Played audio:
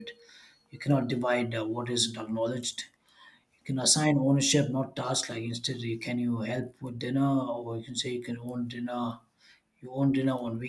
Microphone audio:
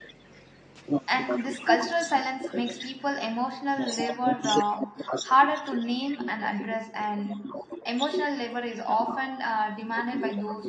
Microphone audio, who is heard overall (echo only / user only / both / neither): both